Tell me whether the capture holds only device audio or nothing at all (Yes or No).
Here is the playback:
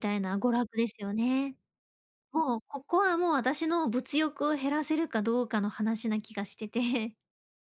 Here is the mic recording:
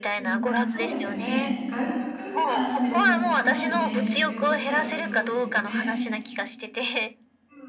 No